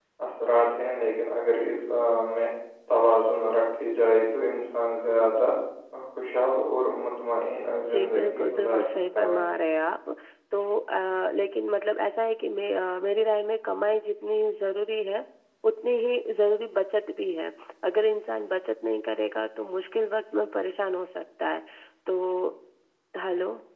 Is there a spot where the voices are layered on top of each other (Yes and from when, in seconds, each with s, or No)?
Yes, from 7.8 s